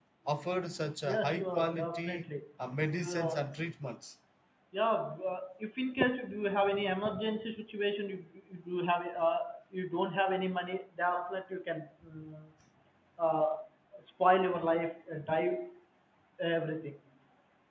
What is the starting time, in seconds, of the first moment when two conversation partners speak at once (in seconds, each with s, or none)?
1.1 s